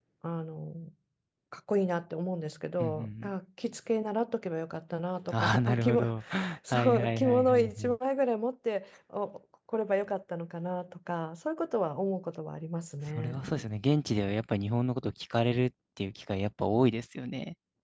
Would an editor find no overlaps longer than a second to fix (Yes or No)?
No